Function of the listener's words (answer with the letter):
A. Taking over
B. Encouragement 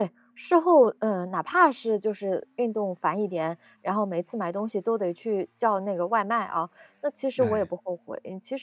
B